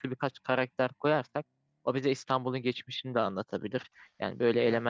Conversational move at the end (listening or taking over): listening